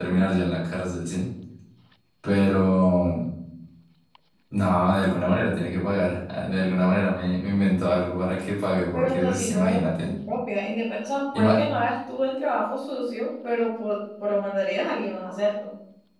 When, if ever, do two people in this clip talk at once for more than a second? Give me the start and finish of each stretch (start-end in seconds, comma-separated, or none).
8.9-10.1